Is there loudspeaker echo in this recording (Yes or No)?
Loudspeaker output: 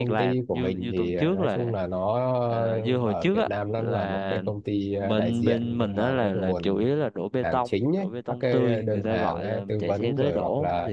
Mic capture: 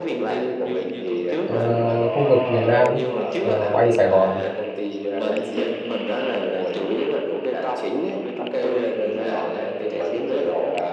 Yes